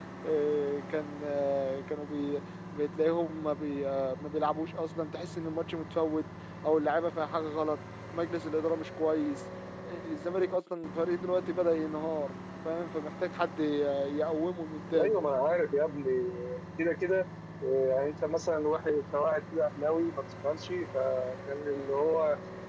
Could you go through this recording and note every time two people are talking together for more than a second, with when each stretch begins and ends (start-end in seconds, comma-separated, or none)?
none